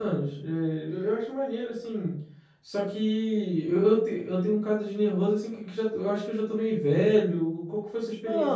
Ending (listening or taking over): taking over